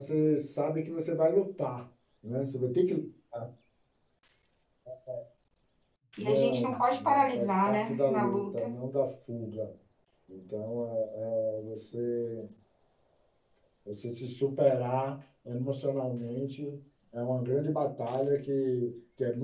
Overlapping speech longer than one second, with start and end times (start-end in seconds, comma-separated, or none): 6.2-8.7